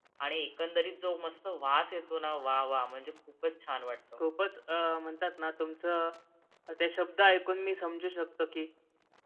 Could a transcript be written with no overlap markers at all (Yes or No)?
Yes